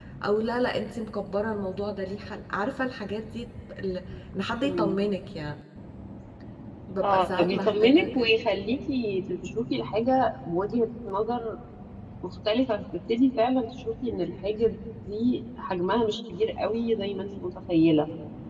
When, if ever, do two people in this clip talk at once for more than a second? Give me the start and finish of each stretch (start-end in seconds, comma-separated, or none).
7.0-8.3